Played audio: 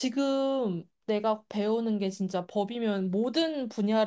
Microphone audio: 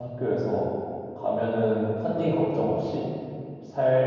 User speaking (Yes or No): Yes